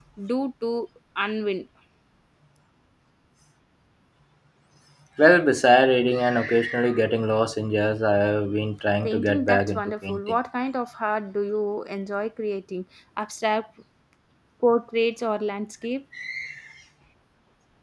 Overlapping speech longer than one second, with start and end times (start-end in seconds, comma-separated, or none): 9.0-10.4